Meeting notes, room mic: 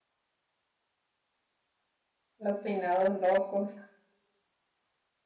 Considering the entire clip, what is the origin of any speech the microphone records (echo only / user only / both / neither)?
user only